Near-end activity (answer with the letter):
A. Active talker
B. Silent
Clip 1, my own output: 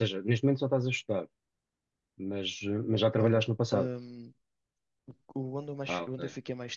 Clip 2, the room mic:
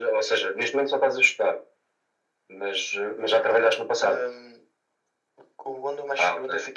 B